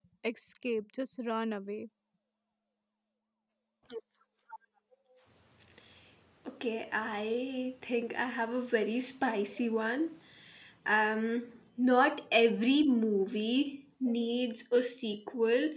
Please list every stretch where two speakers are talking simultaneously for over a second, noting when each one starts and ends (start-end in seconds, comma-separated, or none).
none